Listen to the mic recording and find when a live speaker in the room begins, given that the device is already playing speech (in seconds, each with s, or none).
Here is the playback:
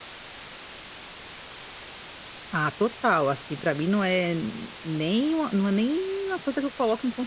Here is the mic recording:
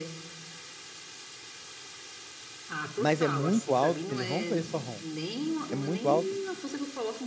3.0 s